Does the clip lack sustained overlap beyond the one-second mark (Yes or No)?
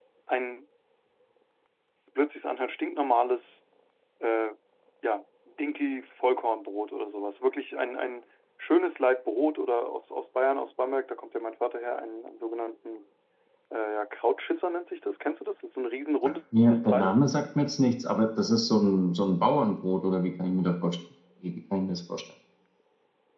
Yes